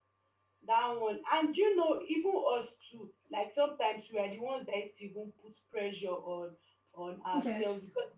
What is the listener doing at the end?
listening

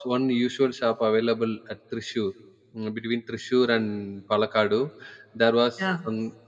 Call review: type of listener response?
listening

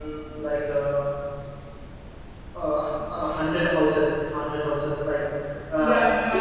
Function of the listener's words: taking over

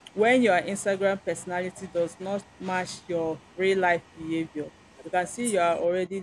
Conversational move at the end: listening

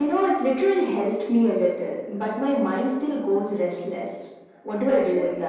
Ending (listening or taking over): taking over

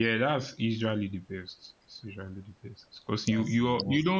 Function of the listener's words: listening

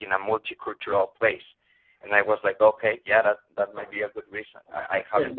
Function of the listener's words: taking over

